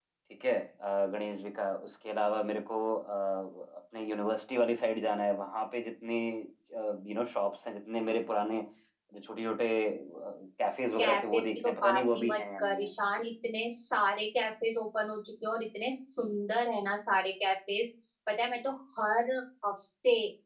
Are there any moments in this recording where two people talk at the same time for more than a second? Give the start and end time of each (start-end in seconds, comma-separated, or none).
11.0-12.8